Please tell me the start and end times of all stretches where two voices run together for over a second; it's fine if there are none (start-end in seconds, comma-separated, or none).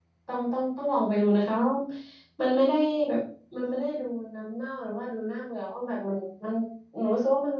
none